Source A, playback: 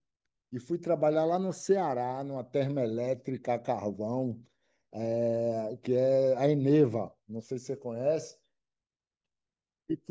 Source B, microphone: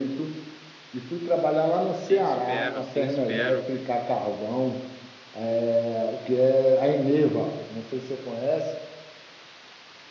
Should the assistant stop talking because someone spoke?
Yes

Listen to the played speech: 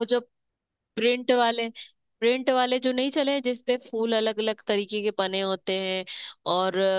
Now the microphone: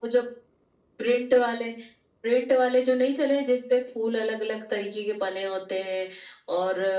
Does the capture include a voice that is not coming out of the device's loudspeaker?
No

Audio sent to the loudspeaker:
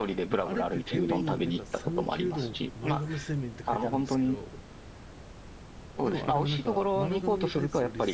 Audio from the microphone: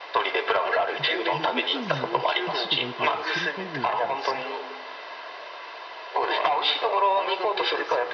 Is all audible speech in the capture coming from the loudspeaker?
No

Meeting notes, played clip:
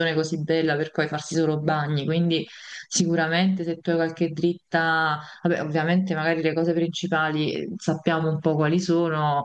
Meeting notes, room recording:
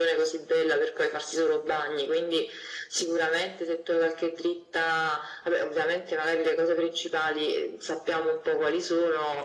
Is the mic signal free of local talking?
Yes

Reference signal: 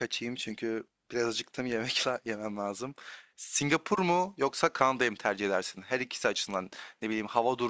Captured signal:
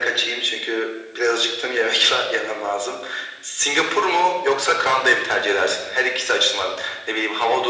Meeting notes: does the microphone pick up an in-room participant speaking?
No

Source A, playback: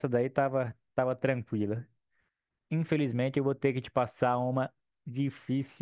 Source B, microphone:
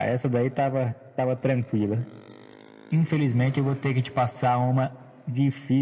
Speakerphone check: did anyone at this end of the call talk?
No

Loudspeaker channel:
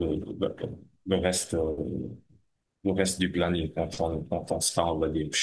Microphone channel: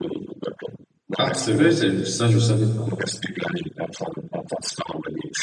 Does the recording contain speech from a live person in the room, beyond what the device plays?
Yes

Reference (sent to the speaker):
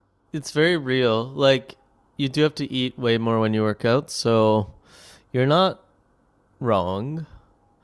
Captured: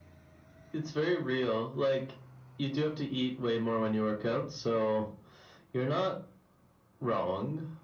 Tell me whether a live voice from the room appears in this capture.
No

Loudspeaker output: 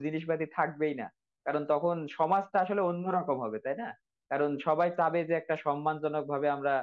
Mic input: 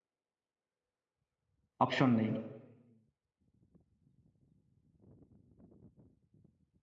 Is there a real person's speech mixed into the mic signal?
Yes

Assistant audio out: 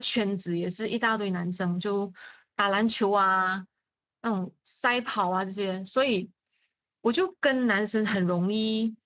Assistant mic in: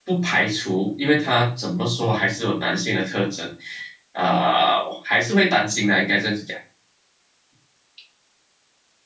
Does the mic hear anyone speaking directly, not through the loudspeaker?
Yes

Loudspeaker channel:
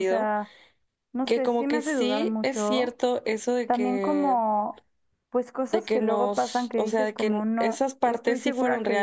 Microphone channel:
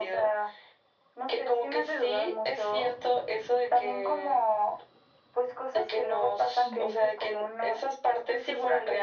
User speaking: Yes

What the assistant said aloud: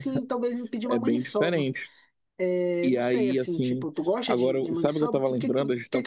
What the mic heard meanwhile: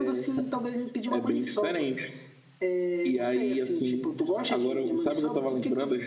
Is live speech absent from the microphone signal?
Yes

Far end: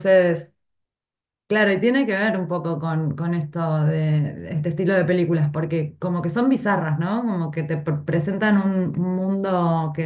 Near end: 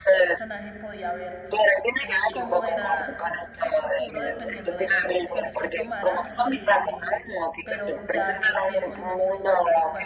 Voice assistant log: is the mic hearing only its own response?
No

